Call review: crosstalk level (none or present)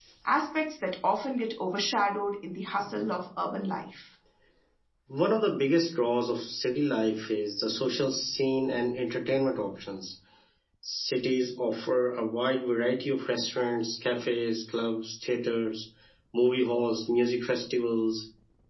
none